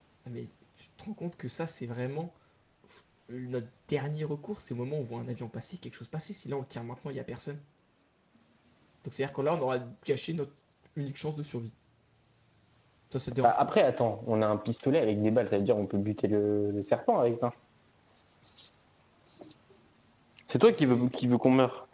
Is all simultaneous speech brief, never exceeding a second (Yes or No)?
Yes